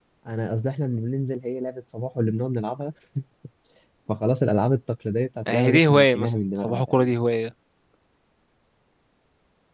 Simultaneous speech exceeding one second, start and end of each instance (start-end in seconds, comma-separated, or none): 5.5-7.2